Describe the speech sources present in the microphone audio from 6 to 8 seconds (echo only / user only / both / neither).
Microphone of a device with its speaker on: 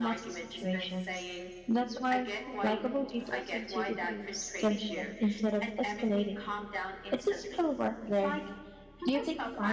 both